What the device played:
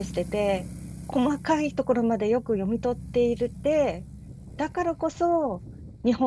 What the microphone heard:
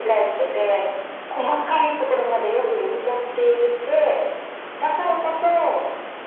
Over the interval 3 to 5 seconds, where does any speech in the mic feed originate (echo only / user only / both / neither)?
echo only